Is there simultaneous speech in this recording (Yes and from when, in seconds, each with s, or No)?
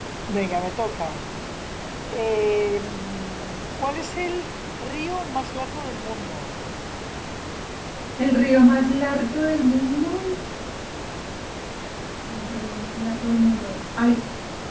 No